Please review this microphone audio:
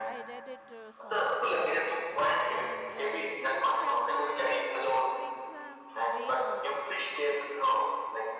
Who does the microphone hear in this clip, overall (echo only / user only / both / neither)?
both